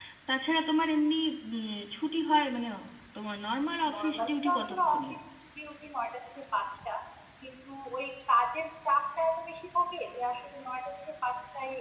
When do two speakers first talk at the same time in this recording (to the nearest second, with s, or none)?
4 s